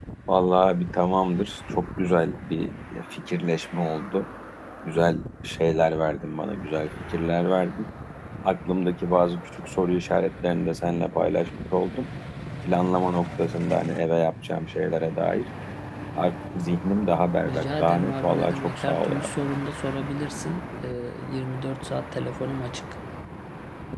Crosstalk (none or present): present